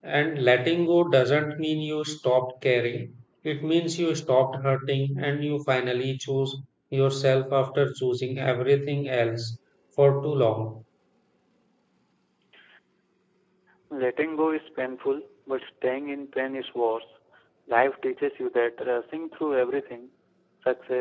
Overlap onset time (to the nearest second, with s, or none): none